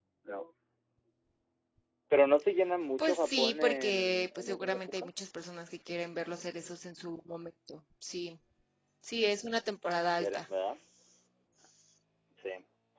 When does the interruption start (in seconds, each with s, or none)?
3.0 s